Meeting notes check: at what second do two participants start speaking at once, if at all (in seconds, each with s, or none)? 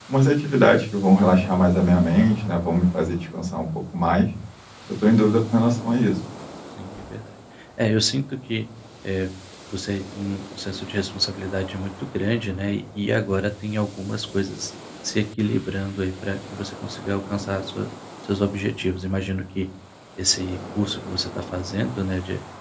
none